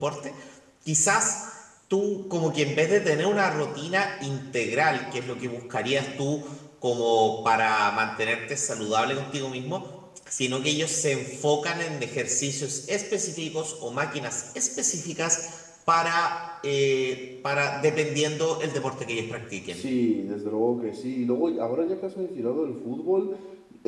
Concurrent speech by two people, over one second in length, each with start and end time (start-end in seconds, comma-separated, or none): none